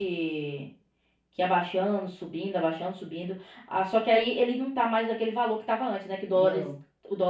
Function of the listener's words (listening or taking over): listening